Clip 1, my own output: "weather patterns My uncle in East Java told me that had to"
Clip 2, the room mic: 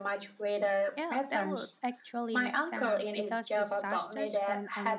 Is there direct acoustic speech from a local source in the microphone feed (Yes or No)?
Yes